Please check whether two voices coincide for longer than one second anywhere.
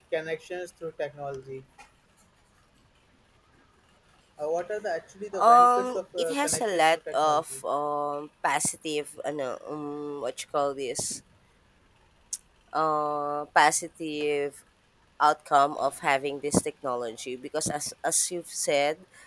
Yes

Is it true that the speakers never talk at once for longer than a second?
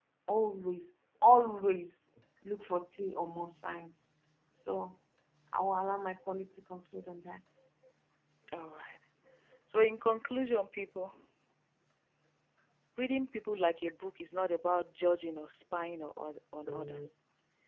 Yes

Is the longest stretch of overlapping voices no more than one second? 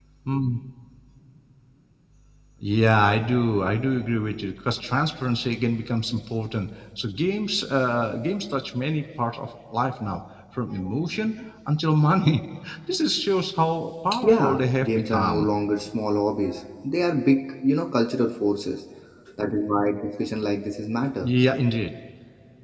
No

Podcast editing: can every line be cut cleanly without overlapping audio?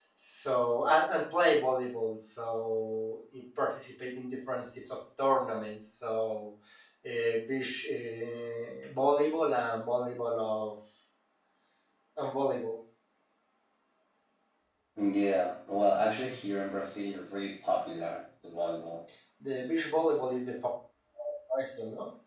Yes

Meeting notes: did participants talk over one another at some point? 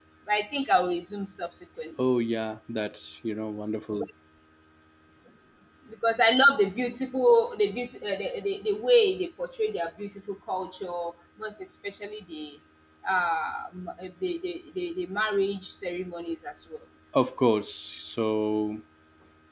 No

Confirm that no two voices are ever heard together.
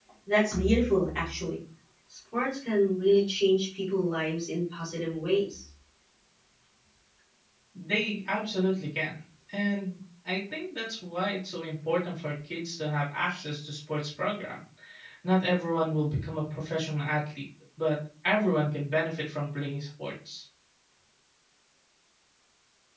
Yes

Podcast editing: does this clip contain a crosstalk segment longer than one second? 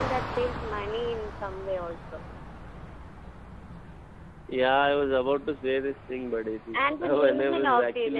Yes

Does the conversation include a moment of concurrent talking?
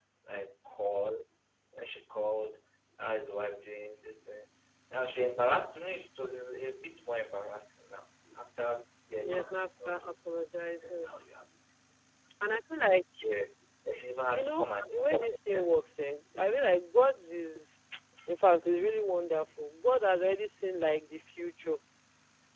Yes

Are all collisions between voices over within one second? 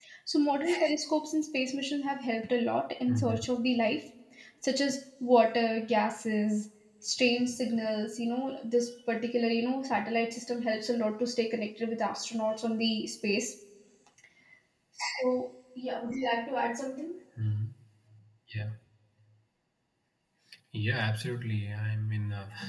Yes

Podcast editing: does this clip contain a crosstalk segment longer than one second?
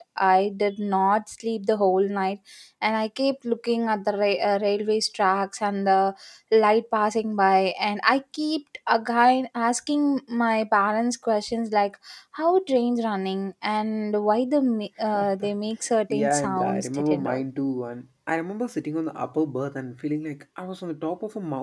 Yes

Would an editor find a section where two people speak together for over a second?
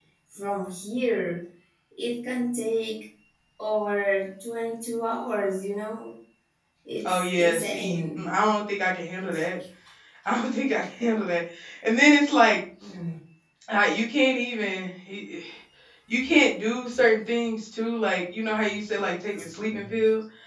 Yes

